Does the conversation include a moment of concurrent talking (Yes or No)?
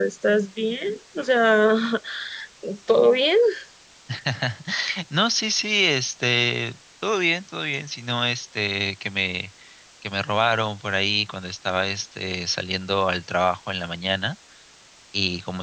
No